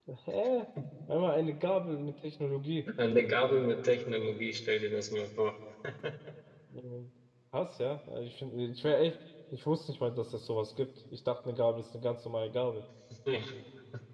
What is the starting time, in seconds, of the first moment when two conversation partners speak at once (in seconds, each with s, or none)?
none